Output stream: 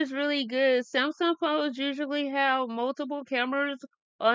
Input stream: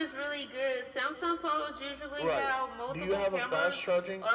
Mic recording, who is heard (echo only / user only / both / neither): both